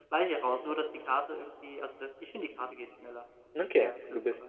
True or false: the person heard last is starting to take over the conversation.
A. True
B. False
A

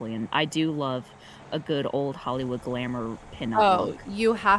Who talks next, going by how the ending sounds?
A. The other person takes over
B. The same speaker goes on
A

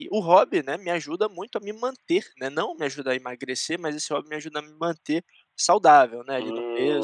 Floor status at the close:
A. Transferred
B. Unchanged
A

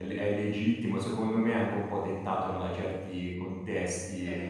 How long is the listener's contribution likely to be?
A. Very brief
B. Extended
A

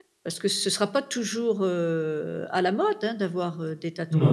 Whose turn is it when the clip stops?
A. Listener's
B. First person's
A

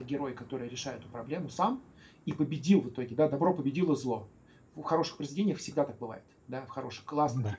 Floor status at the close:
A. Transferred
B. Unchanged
B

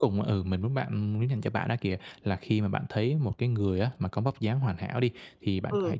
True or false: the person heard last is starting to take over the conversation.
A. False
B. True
A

